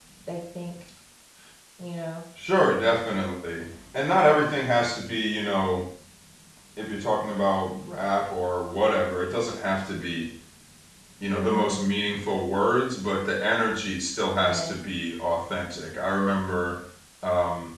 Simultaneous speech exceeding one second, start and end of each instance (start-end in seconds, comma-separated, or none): none